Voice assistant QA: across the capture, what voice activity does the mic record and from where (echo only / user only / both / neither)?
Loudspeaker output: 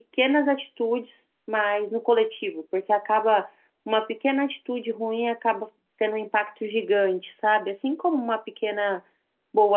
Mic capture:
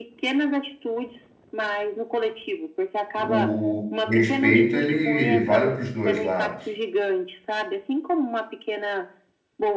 both